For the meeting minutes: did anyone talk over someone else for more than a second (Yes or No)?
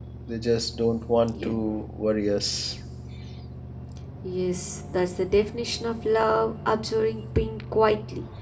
No